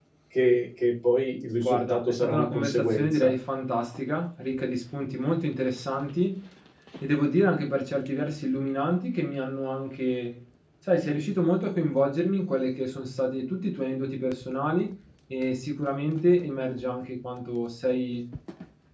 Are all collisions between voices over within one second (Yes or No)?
No